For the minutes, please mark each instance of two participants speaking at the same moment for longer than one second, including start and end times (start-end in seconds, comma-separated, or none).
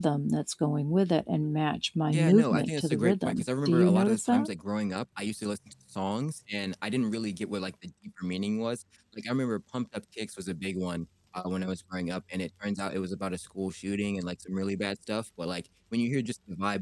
2.1-4.5